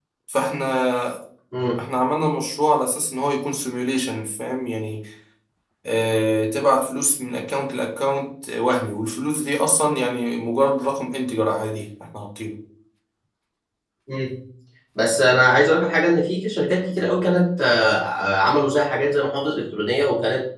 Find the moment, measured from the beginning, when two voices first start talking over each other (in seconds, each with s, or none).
none